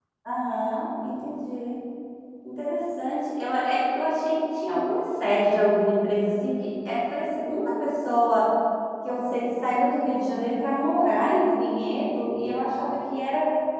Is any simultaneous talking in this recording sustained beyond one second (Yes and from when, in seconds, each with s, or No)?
No